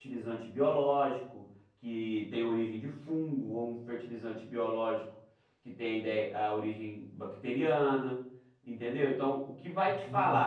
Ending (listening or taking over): listening